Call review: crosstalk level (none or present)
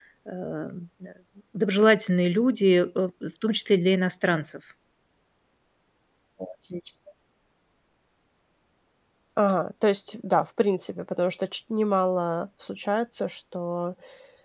none